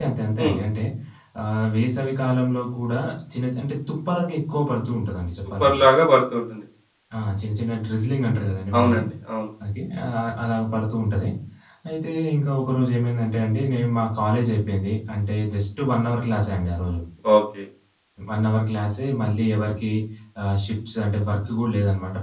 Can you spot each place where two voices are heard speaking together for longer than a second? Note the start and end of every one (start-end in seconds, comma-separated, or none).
none